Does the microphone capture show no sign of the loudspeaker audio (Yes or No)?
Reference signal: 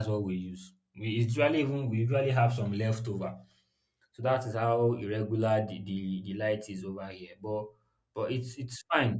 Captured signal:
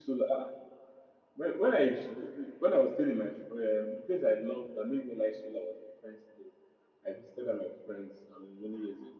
Yes